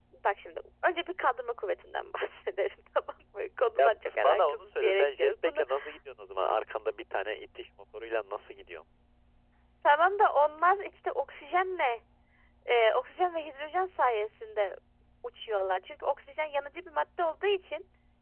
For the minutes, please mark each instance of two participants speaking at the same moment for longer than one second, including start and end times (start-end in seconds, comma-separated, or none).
3.8-5.6